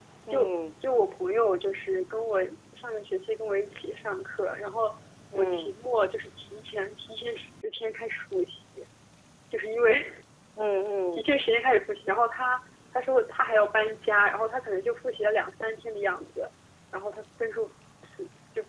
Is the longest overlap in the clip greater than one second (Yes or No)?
No